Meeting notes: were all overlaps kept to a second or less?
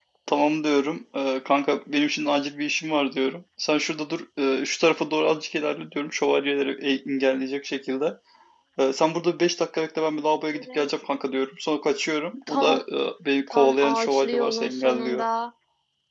No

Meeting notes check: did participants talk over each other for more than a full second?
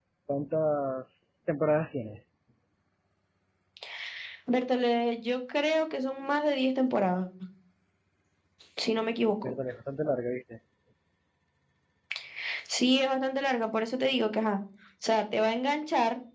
No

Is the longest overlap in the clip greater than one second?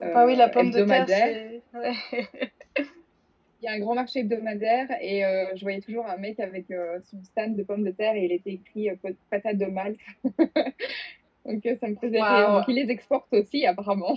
Yes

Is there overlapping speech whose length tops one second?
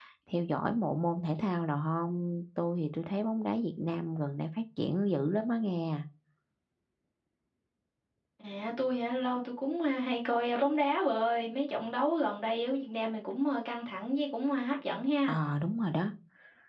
No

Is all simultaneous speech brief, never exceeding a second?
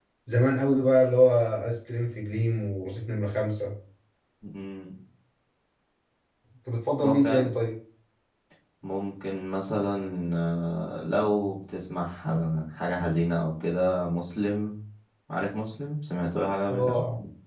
Yes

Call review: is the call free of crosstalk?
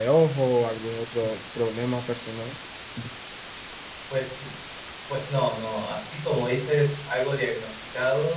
Yes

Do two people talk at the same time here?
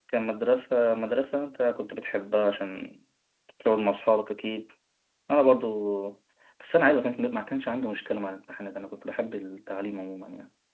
No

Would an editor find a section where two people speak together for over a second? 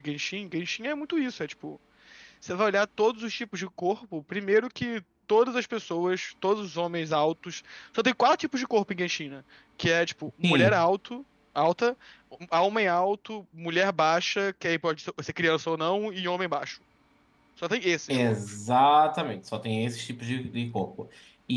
No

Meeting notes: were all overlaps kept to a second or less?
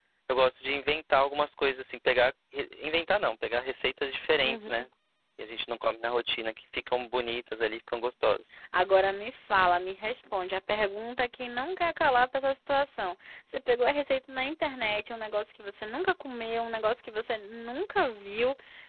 Yes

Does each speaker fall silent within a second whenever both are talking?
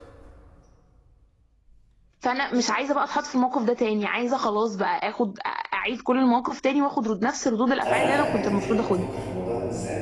No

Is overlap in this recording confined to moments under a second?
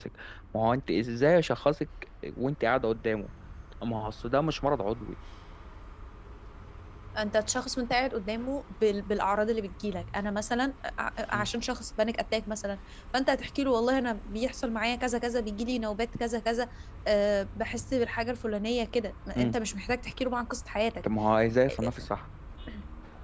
Yes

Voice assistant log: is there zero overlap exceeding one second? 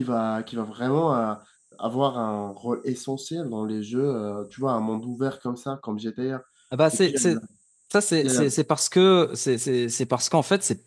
Yes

